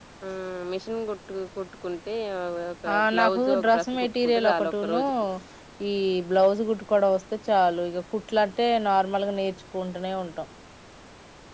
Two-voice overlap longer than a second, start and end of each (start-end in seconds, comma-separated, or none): 3.1-5.0